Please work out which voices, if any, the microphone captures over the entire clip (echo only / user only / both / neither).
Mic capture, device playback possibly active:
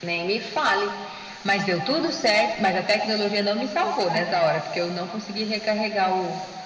both